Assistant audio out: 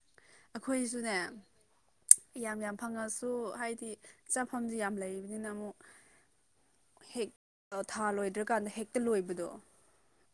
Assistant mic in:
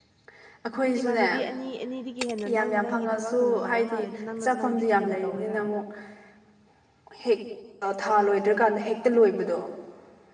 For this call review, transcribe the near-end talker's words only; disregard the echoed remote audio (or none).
ꯏꯃꯥꯟꯅꯕꯤ ꯑꯅꯤ ꯑꯅꯤꯗꯒꯤ ꯍꯦꯟꯅ ꯅꯪ ꯅꯪꯒꯤ ꯊꯕꯛꯅ ꯅꯨꯡꯉꯥꯏꯕ ꯃꯥꯜꯂꯦ ꯅꯪ ꯅꯪꯗꯤ ꯀꯨꯏꯅ ꯇꯧꯋꯦꯗ